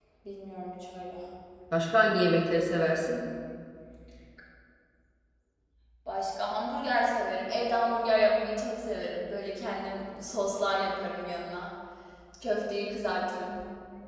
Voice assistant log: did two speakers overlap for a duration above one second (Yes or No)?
No